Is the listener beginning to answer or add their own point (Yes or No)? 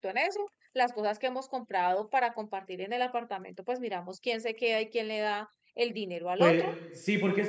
Yes